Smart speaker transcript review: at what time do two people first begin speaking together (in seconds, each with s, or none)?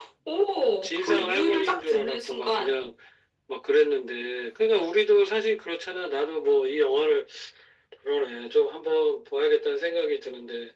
0.8 s